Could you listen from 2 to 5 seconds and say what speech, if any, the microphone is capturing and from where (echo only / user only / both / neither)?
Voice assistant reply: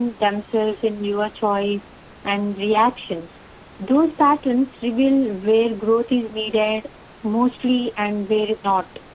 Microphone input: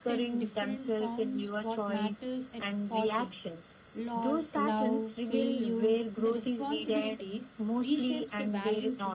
both